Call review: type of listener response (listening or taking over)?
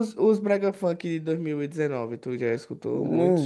taking over